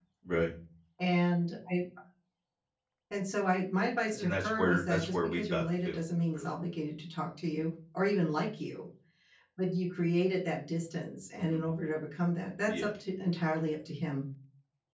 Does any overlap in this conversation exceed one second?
Yes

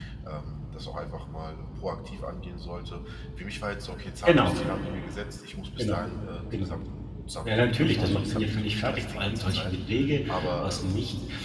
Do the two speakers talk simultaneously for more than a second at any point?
Yes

